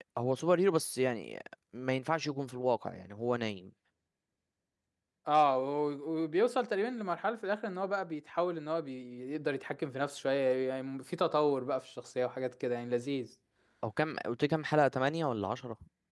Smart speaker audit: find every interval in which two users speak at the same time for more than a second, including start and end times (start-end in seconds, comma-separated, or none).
none